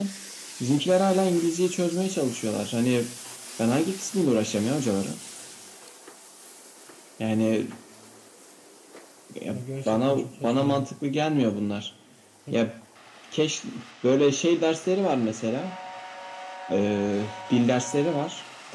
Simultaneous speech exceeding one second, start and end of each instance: 9.5-10.9

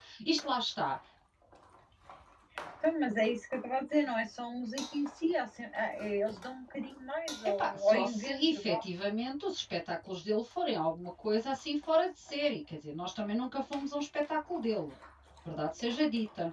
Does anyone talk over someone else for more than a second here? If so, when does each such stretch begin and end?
7.6-8.8

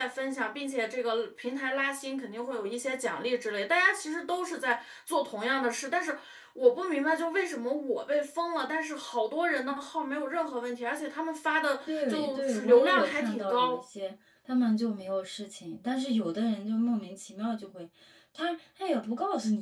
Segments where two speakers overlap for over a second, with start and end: 11.9-13.8

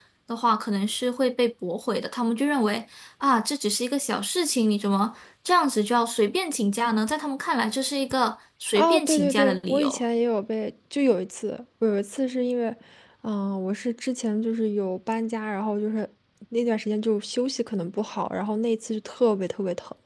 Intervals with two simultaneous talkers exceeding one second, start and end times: 8.8-10.0

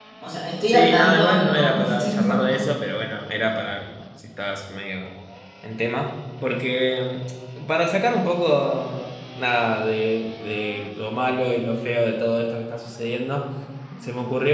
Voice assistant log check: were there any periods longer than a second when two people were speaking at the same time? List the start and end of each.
0.7-2.6

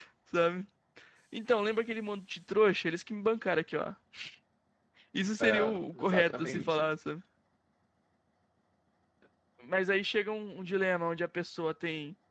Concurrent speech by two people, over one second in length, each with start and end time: 5.4-6.8

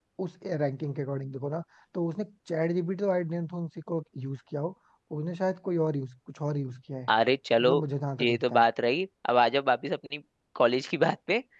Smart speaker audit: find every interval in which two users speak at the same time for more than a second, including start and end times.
none

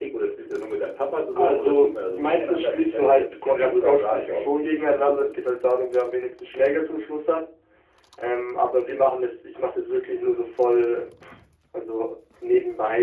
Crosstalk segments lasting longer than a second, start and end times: 1.4-4.5

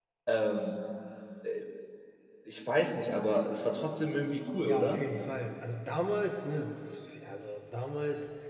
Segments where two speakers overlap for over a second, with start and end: none

